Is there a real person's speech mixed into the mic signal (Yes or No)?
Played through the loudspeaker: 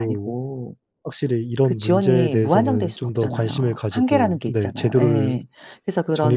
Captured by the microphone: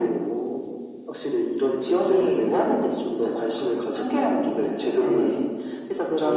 No